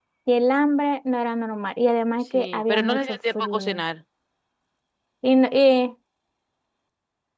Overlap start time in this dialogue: 2 s

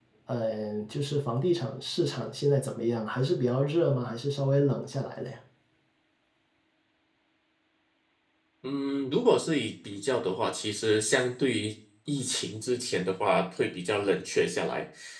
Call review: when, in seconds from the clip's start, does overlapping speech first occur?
none

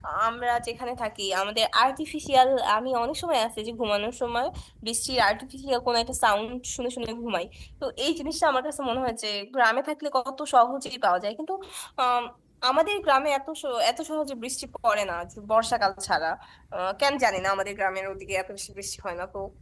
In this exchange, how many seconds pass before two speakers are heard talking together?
none

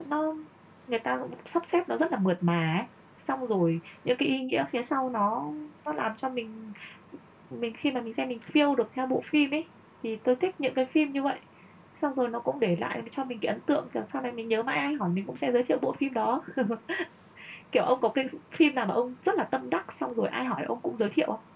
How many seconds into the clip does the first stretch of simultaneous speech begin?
none

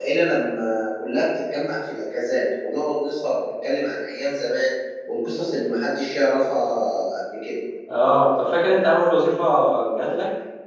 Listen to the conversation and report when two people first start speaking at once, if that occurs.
none

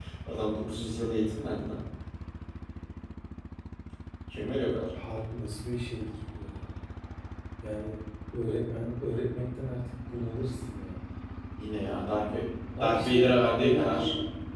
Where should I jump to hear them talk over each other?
13 s

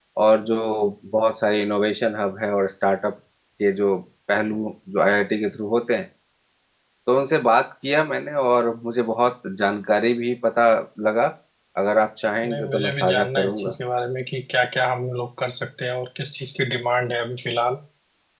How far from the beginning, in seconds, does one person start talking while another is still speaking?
12 s

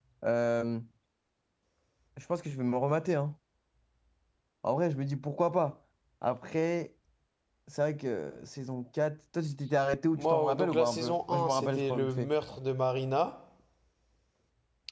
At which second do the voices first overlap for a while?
10 s

